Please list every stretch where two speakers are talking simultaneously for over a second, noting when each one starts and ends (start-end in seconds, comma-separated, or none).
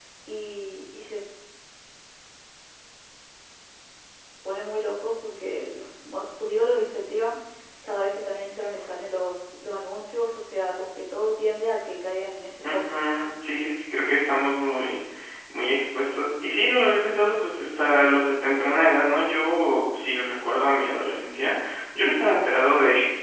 none